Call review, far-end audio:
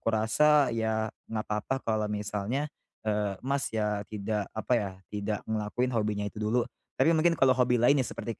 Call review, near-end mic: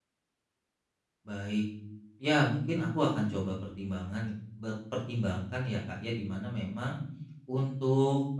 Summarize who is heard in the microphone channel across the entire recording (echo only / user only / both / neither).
user only